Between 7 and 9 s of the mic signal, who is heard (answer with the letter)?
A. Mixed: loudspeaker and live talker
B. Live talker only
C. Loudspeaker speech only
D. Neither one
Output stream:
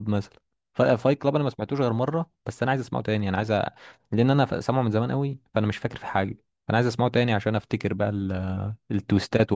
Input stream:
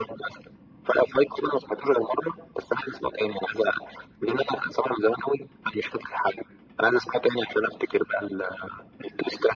C